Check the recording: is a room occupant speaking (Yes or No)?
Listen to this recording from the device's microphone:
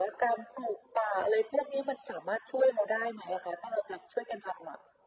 No